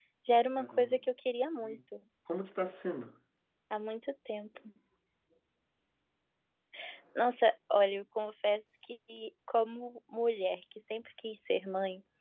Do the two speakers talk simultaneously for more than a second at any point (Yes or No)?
No